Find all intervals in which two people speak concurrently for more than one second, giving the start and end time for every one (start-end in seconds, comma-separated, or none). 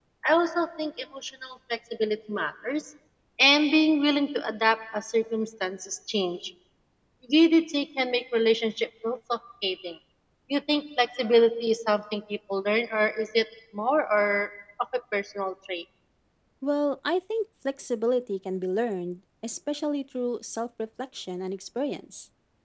none